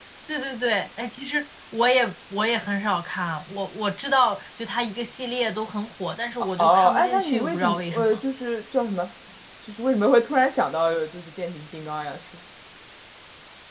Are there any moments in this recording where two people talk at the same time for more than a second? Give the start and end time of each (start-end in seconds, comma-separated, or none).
6.6-8.2